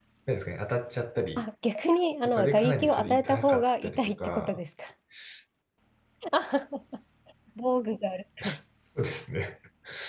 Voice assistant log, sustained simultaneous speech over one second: present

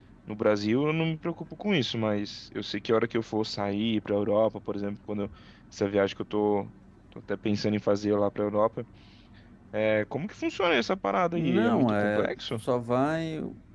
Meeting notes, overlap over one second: present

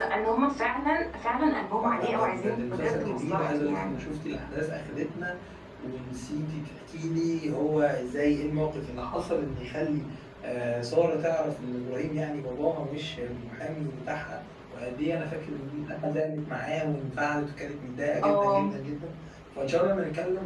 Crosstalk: present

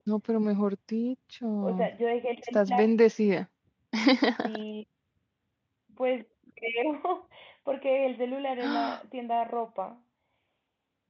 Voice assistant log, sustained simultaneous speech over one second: none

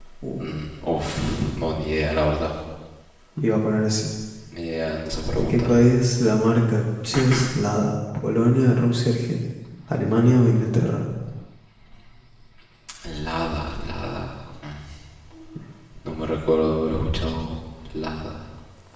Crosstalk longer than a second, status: none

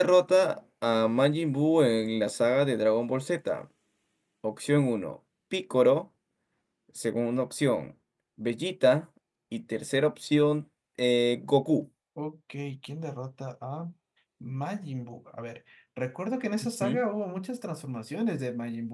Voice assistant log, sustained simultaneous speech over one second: none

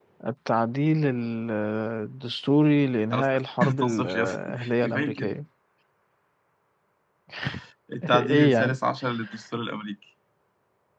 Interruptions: present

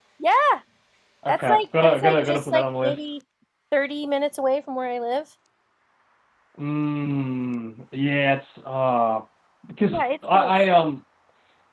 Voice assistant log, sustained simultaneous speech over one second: present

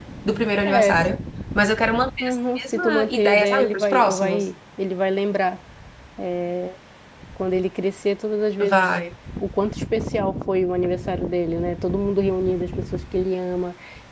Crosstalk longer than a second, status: present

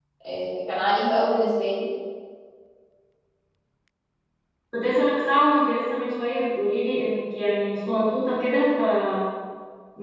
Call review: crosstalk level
none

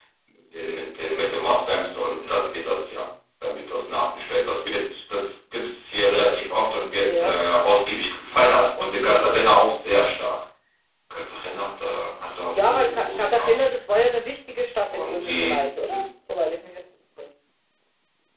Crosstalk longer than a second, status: present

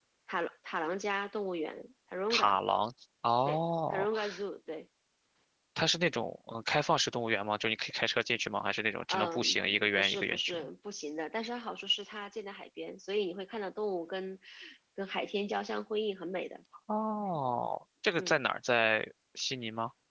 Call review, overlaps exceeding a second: present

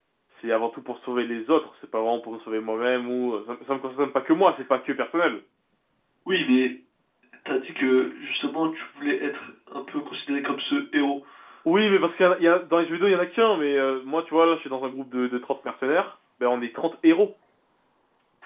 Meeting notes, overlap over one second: none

